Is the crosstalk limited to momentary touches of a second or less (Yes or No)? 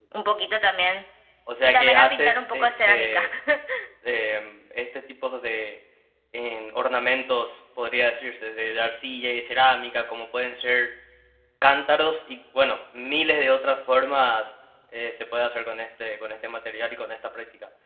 No